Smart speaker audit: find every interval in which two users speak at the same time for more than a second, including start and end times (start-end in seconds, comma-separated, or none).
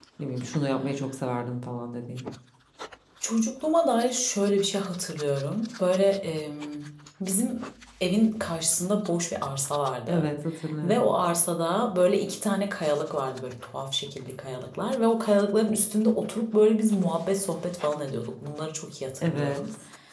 none